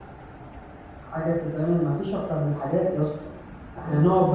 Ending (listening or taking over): listening